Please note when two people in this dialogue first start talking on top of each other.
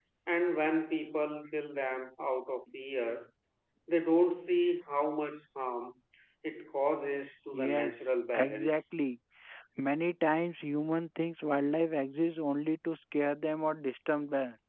7.5 s

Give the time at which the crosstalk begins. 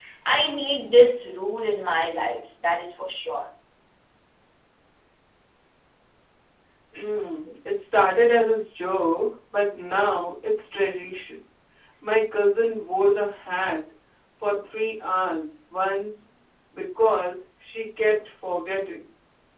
none

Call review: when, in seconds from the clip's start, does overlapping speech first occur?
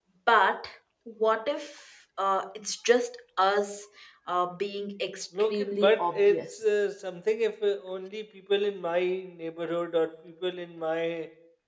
5.3 s

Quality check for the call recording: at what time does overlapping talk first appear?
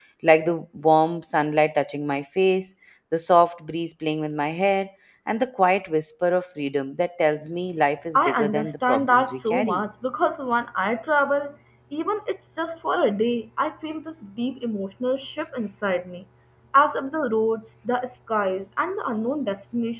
8.1 s

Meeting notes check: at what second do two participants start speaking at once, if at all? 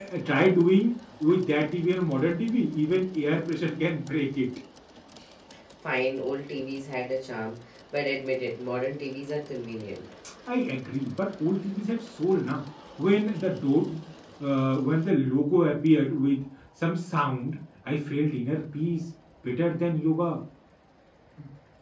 none

